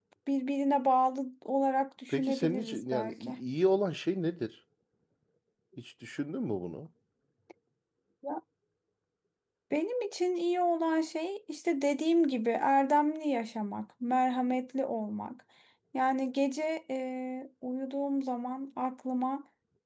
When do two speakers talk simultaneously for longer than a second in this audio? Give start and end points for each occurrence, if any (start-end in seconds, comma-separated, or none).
2.1-3.4